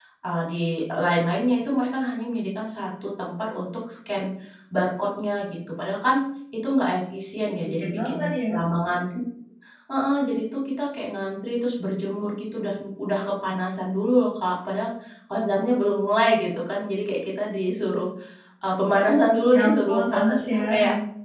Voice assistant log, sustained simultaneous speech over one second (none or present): present